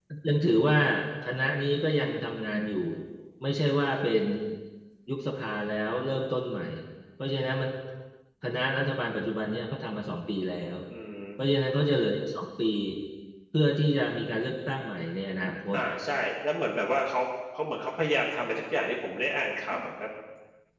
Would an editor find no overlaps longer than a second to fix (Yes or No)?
Yes